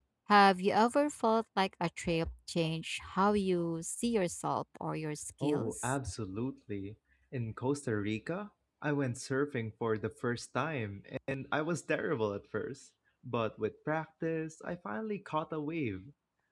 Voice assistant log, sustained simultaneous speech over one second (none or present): none